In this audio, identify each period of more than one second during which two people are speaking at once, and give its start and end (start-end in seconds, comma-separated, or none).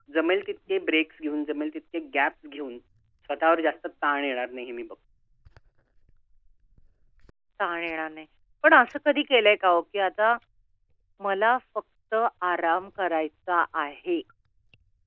none